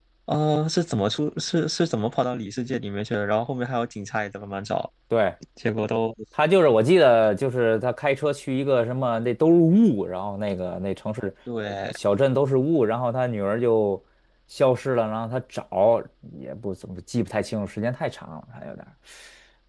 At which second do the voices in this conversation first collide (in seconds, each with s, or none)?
none